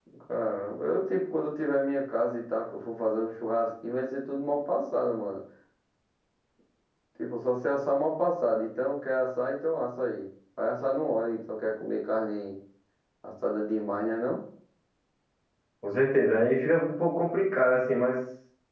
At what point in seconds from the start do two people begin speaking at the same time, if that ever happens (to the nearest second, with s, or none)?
none